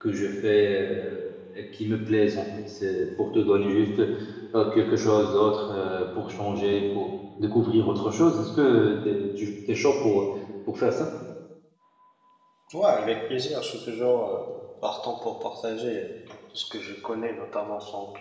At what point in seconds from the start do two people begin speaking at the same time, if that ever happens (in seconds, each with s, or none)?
none